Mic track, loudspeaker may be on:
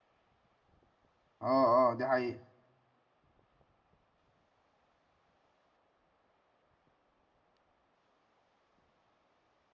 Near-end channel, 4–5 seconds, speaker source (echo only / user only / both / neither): neither